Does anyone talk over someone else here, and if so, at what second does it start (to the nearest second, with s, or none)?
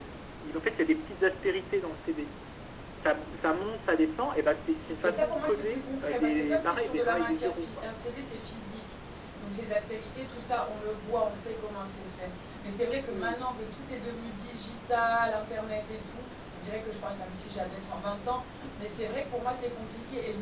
5 s